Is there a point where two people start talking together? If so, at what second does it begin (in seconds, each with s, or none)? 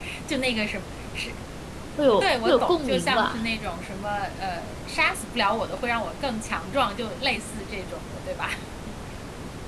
2.2 s